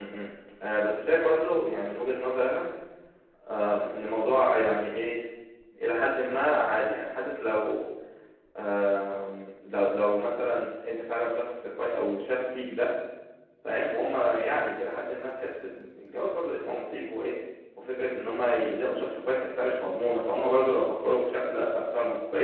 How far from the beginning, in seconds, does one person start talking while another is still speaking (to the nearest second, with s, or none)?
none